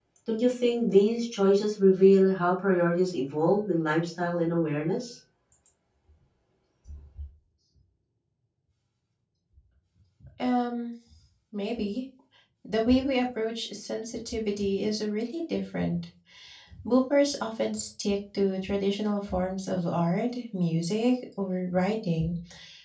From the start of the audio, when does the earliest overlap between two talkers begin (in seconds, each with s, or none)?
none